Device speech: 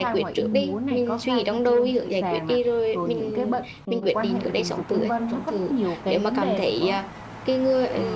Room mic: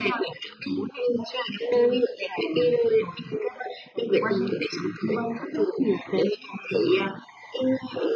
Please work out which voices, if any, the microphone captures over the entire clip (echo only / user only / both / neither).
echo only